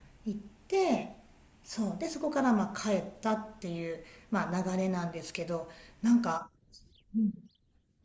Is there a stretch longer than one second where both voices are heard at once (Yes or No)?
No